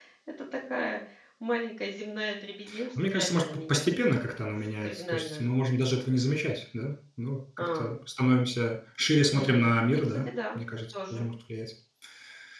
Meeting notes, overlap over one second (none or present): present